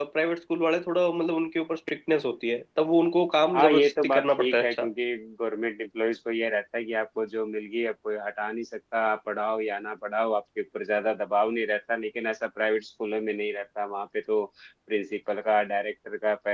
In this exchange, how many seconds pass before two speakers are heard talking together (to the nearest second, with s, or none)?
4 s